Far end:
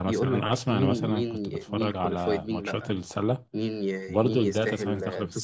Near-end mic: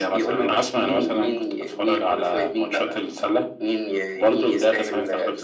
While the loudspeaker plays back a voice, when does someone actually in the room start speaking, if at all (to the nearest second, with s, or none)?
none